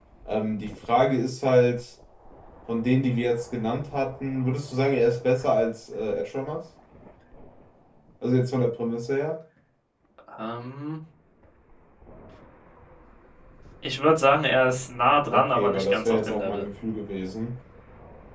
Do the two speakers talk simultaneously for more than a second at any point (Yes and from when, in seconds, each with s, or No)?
Yes, from 15.3 s